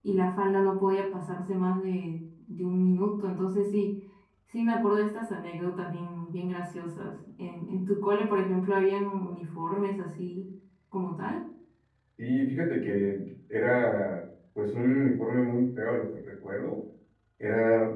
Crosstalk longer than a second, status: none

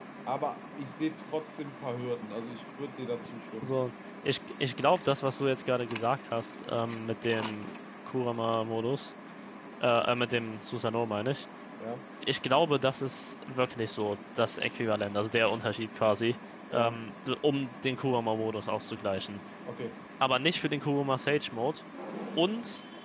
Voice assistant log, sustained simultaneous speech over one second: none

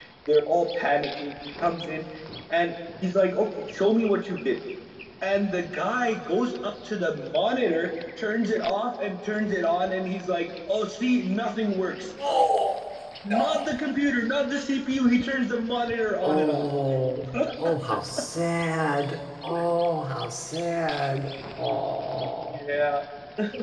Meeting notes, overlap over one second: none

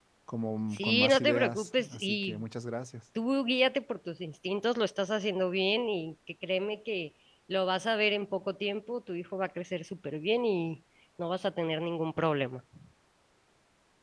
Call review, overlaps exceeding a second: present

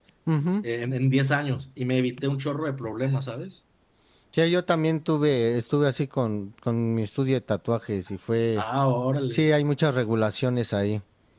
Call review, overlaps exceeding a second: none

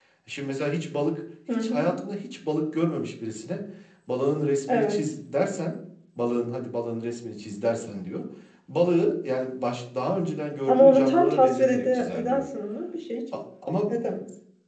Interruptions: present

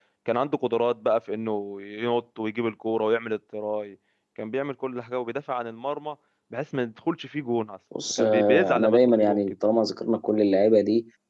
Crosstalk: present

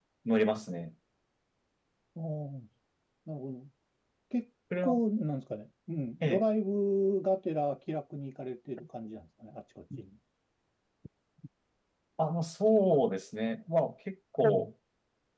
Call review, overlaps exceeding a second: none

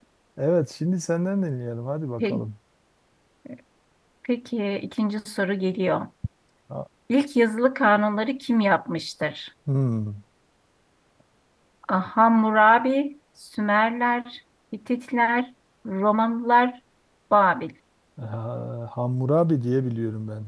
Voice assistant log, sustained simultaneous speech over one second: none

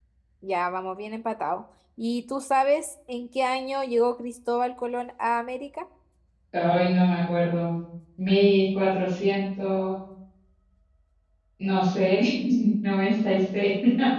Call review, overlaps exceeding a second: none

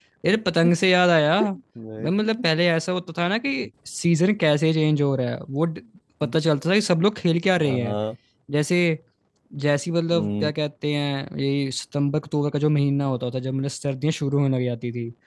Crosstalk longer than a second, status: none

